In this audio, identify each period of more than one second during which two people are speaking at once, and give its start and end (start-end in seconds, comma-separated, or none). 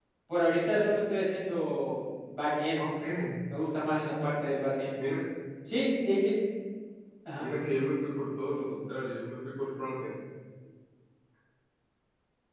none